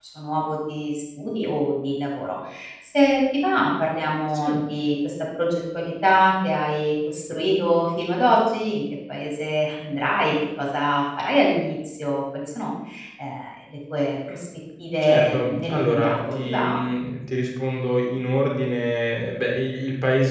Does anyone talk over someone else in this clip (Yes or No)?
Yes